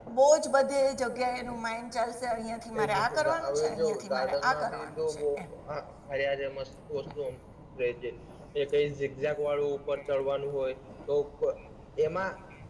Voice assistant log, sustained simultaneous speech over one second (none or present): present